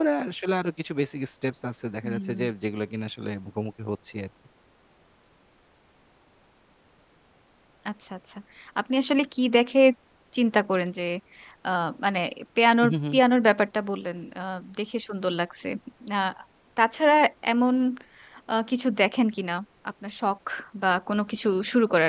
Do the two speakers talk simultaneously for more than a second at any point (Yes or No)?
No